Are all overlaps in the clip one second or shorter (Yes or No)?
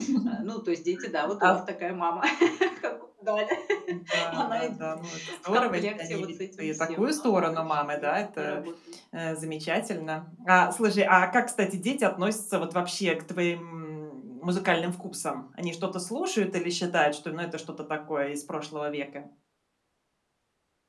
No